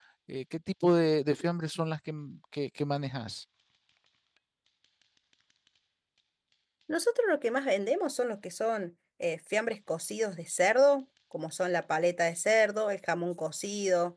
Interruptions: none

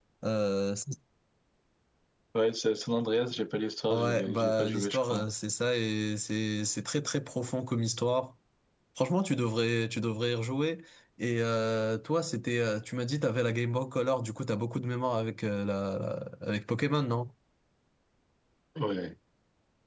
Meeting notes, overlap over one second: present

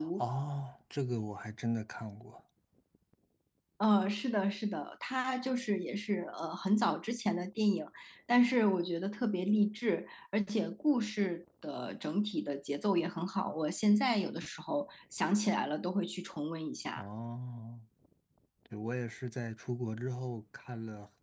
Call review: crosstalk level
none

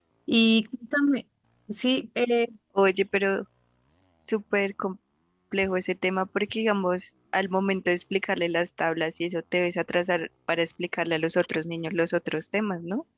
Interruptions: none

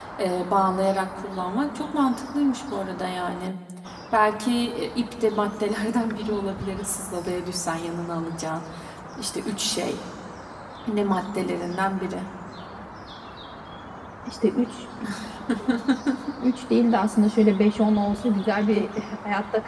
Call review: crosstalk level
none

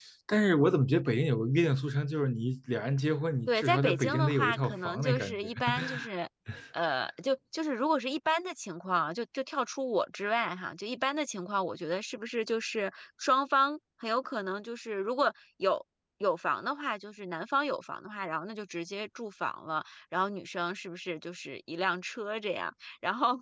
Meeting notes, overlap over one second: present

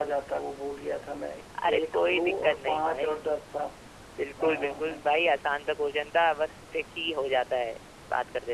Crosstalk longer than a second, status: present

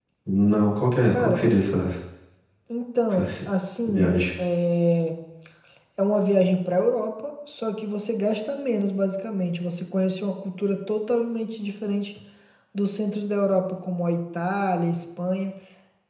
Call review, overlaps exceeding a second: none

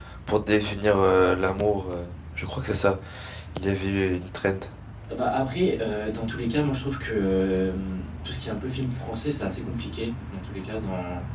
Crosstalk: none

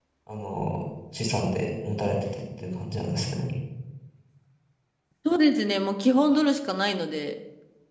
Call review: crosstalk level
none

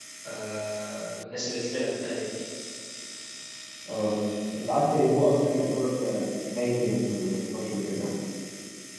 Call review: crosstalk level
none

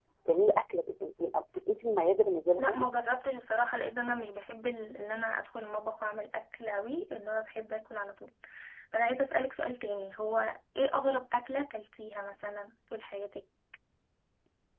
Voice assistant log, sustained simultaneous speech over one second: none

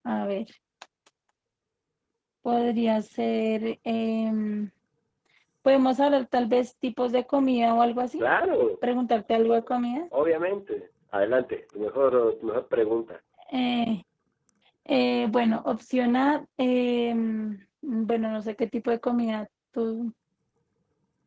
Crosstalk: none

